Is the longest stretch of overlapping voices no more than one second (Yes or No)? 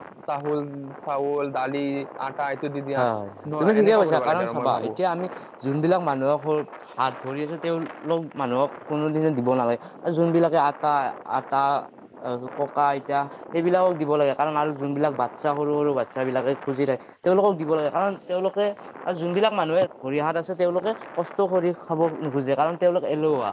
No